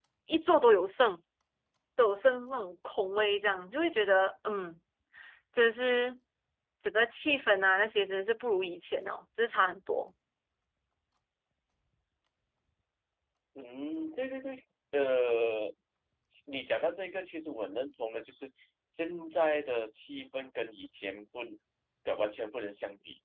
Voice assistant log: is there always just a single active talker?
Yes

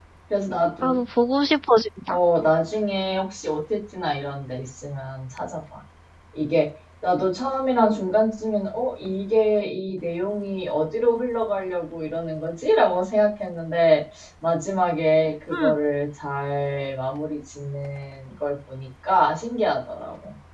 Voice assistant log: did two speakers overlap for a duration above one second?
No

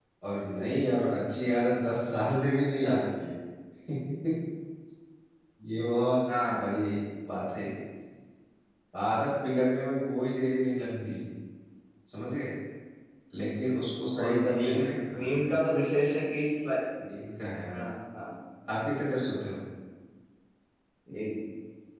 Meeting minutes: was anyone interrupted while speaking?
Yes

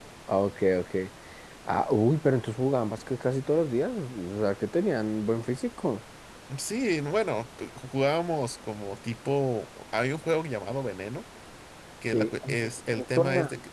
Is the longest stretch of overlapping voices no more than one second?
No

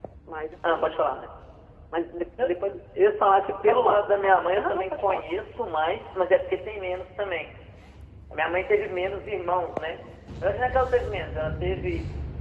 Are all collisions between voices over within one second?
No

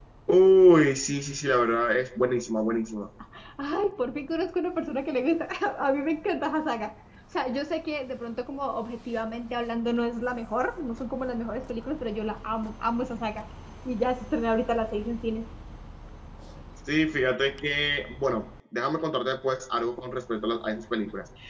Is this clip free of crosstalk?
Yes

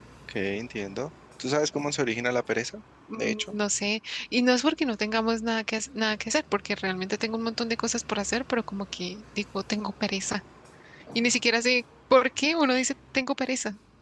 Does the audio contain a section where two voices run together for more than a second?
No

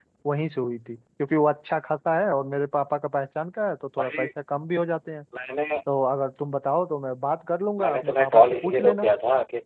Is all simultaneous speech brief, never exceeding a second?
No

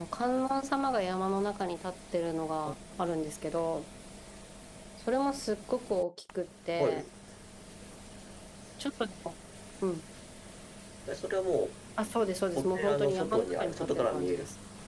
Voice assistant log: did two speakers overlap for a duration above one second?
Yes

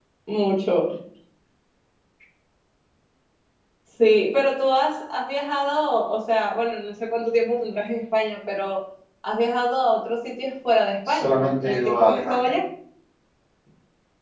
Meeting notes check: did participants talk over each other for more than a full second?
Yes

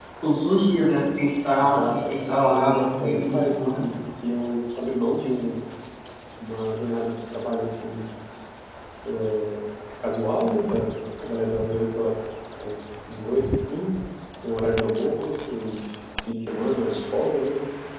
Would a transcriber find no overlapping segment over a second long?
No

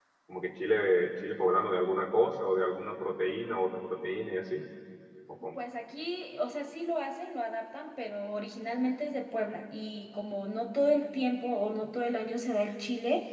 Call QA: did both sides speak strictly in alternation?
Yes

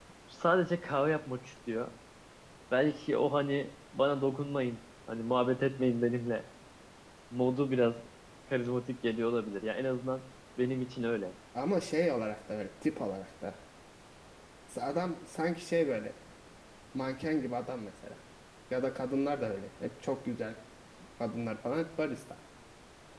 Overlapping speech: No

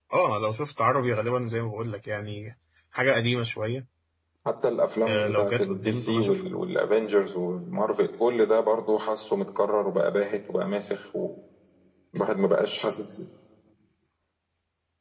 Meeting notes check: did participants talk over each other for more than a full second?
Yes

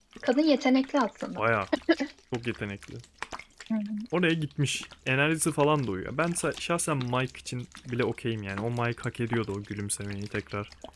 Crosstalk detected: No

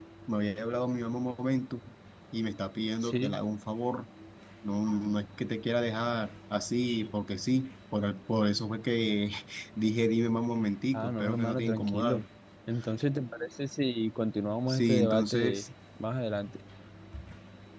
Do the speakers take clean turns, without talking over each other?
No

